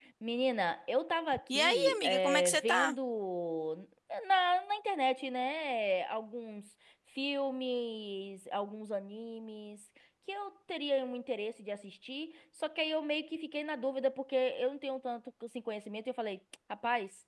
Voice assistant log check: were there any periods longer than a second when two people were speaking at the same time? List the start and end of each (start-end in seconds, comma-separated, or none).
1.5-3.0